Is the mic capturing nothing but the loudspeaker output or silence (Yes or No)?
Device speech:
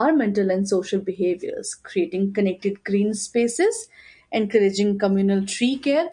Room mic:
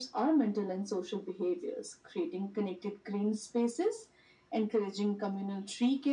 Yes